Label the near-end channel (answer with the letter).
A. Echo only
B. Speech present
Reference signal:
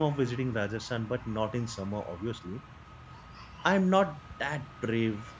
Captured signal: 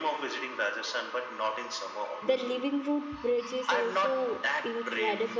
B